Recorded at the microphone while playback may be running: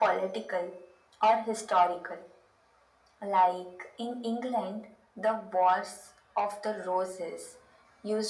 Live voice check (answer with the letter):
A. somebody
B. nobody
B